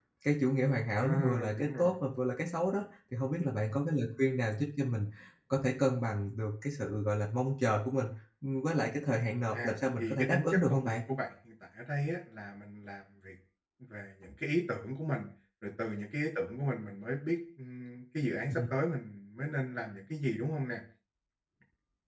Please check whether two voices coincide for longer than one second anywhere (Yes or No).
Yes